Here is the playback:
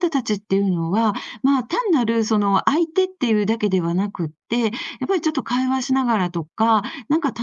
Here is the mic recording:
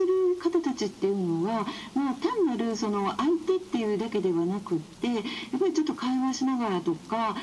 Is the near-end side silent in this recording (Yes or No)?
Yes